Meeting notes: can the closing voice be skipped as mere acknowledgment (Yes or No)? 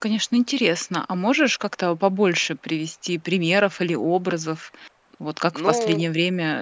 Yes